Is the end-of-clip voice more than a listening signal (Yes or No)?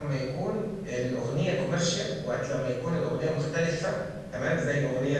No